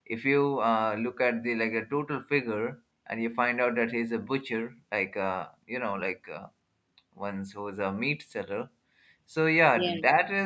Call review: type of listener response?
listening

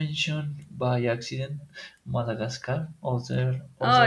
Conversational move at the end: listening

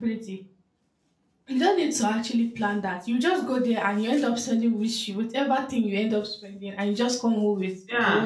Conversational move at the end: taking over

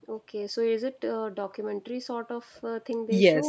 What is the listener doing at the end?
taking over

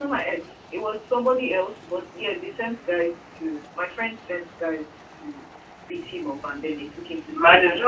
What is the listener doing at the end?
taking over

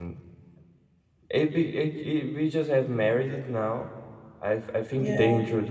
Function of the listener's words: listening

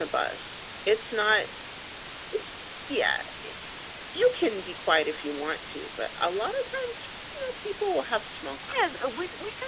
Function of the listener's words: taking over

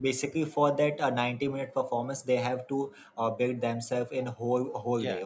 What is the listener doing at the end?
listening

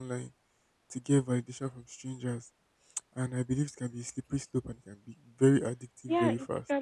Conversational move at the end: taking over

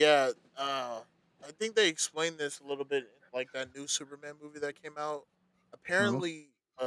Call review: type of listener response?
listening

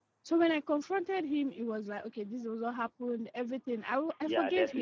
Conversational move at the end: listening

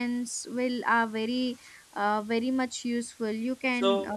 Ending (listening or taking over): taking over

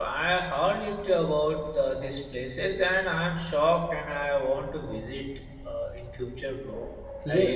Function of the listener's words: taking over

